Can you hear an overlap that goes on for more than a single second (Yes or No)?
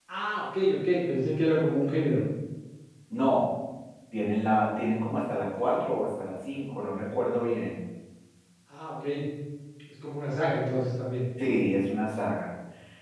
No